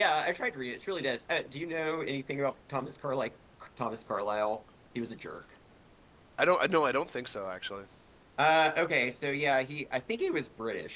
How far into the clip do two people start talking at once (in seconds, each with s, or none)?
none